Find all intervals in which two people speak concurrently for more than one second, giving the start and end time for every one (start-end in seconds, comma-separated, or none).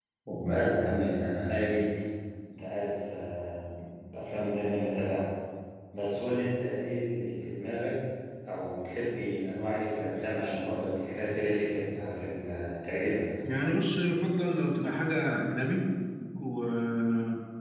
none